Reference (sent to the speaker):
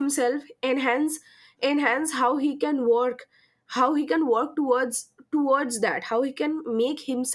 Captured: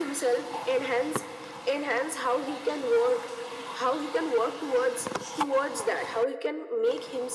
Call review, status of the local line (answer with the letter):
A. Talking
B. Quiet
B